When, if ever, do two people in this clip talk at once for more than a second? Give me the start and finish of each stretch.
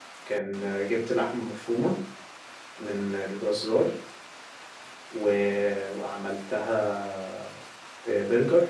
none

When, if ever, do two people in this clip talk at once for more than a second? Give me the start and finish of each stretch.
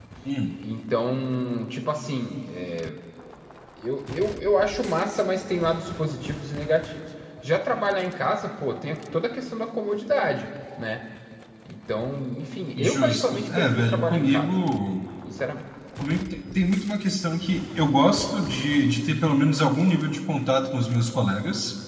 12.8-14.5

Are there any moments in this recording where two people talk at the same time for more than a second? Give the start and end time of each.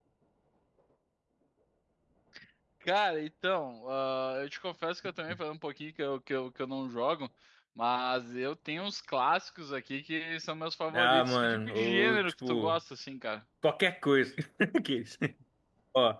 10.9-12.8

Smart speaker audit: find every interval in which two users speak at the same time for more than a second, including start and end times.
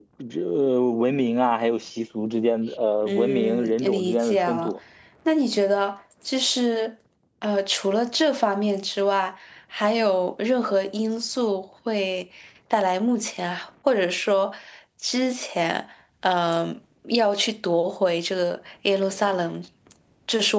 3.0-4.7

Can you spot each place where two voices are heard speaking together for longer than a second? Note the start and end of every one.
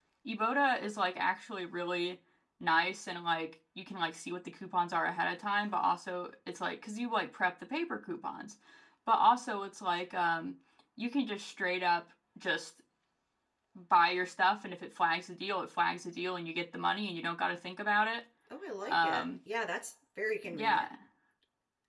none

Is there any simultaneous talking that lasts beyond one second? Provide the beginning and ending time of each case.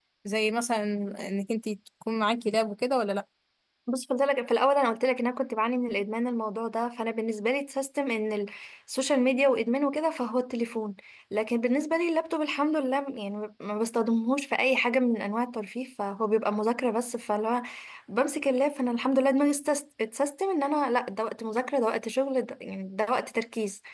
none

